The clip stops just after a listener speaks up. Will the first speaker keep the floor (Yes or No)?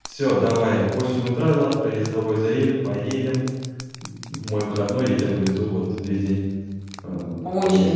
No